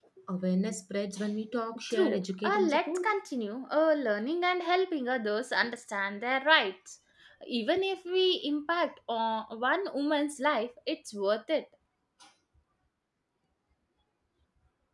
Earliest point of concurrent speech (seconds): 1.9 s

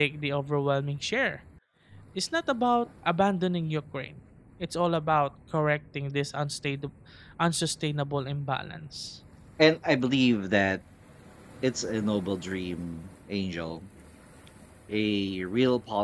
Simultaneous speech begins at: none

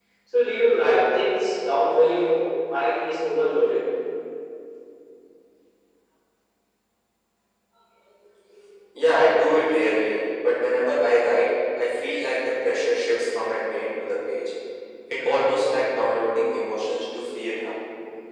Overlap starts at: none

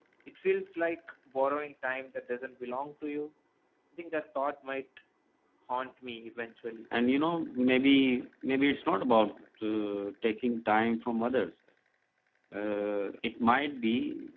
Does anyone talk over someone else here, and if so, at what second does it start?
none

